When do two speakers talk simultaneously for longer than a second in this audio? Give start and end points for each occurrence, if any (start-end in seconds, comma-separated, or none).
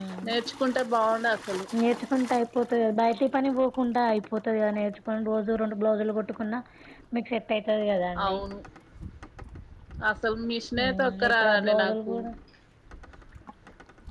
10.8-12.1